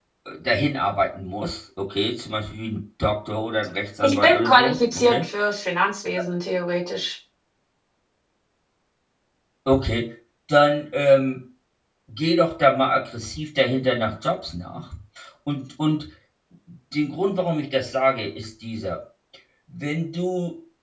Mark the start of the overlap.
4 s

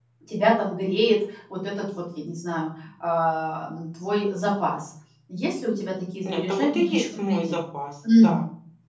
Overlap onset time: 6 s

